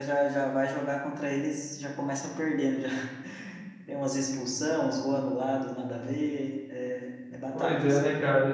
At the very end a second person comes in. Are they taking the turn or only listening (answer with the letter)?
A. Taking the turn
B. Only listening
A